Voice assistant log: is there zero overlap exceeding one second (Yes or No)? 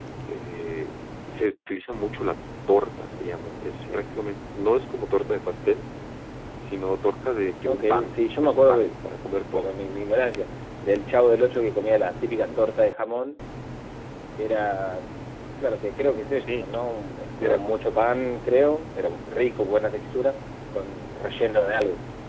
No